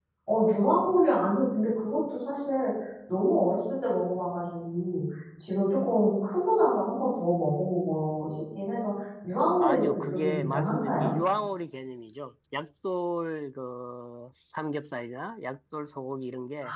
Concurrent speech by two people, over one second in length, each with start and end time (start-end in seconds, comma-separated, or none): 9.6-11.1